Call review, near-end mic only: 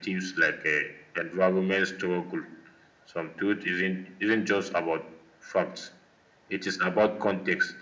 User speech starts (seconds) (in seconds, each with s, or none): none